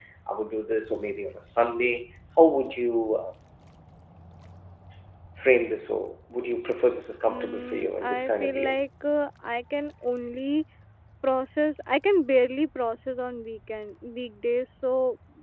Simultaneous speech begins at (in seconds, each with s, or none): 7.3 s